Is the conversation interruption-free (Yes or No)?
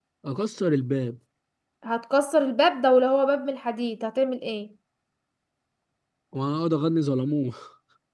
Yes